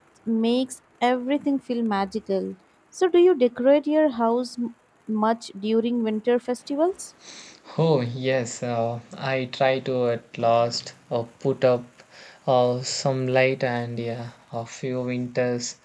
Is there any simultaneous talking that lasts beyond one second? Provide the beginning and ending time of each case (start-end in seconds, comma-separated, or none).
none